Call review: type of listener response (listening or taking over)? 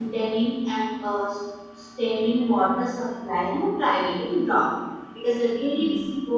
listening